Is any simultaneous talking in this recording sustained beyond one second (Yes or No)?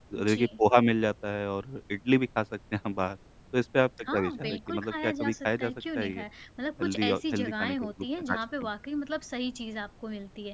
Yes